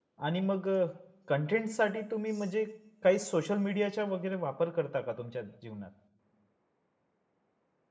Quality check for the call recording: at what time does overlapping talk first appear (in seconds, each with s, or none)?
none